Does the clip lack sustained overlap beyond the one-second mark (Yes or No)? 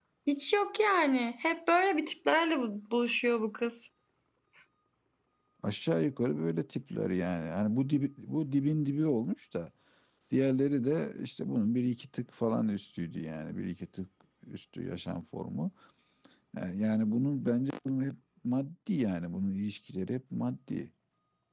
Yes